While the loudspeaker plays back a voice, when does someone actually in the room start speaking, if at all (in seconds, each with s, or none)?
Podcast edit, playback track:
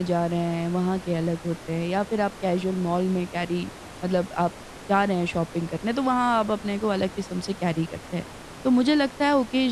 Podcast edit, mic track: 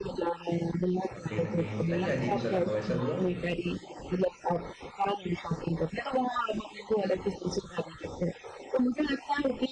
1.1 s